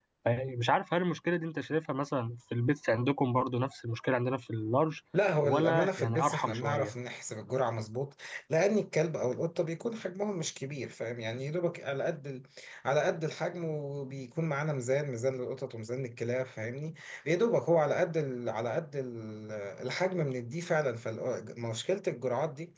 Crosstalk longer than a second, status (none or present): present